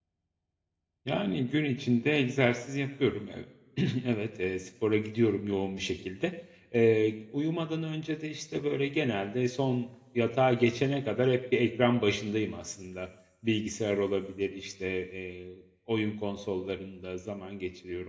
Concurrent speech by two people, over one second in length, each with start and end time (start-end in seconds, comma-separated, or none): none